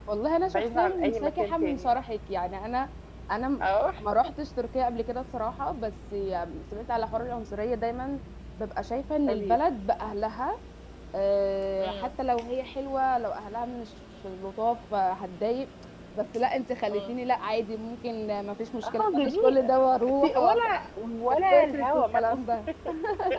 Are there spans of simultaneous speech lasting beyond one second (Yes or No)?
Yes